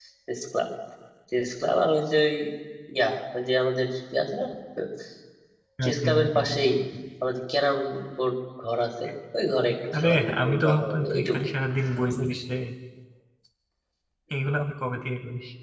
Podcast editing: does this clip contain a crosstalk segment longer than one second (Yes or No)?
Yes